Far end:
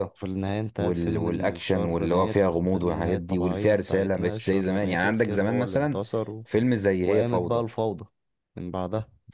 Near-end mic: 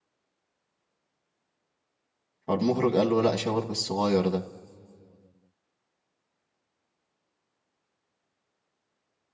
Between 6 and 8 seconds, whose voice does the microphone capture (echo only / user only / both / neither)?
neither